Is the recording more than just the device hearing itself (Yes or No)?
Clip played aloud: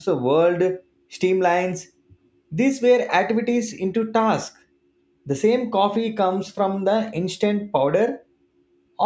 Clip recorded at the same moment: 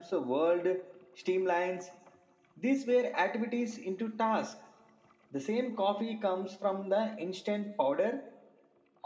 No